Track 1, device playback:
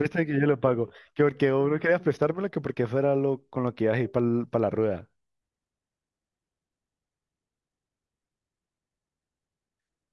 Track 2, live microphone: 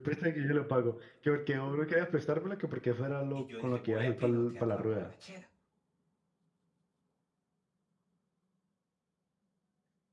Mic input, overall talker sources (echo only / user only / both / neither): both